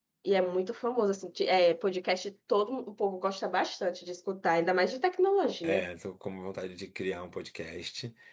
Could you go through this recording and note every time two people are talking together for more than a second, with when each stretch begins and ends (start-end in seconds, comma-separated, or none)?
none